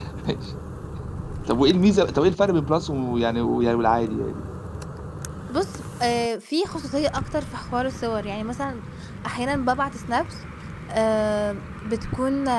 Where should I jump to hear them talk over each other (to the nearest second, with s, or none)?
none